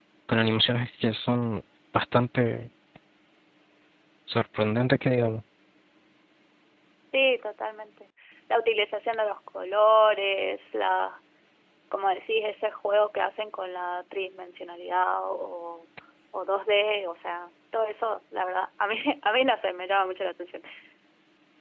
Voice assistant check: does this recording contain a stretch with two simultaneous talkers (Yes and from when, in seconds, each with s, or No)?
No